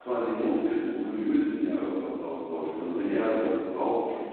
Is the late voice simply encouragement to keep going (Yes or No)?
Yes